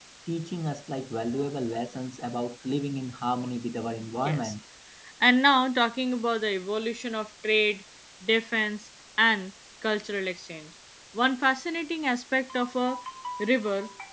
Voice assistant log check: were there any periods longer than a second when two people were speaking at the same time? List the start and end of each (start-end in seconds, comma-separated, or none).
none